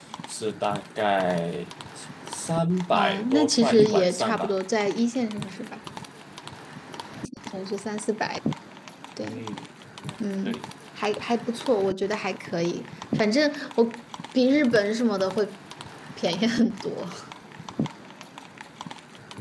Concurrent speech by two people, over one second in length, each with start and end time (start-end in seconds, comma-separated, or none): 2.9-4.5